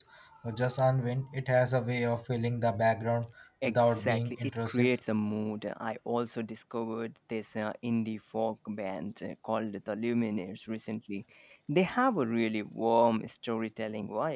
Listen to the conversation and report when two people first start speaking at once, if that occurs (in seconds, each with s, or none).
3.6 s